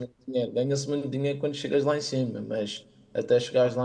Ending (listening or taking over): listening